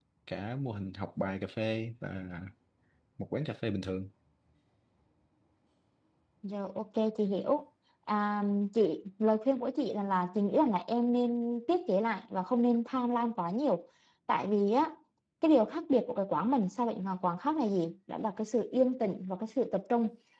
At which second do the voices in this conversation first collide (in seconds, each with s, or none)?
none